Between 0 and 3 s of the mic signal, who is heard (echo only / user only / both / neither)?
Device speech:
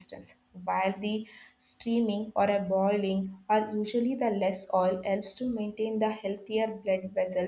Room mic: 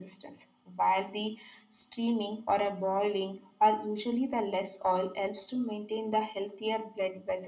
echo only